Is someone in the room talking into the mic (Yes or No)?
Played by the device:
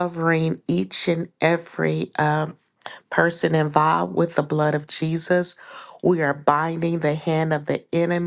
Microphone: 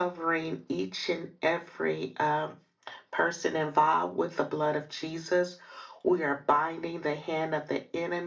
No